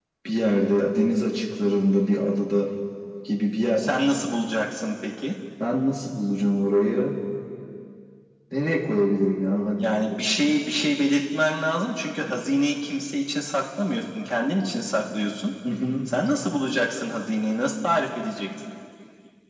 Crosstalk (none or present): none